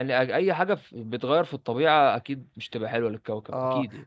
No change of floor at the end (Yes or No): No